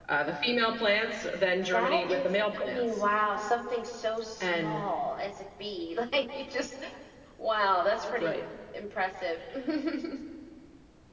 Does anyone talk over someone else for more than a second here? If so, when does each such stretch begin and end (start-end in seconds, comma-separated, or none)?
1.7-3.0